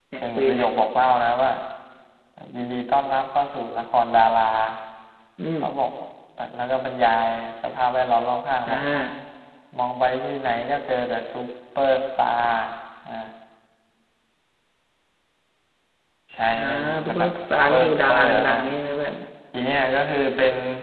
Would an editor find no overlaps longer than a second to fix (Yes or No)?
No